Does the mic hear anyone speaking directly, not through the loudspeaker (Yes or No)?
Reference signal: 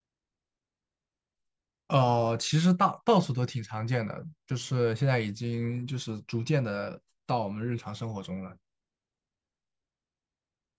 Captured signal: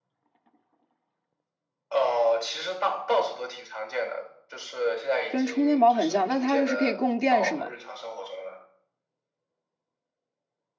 Yes